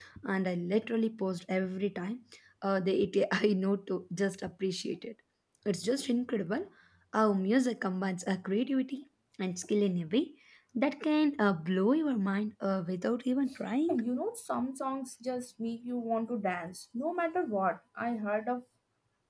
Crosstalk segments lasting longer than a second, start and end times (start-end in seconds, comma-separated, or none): none